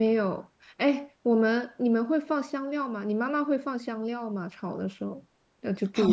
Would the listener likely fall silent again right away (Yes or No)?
No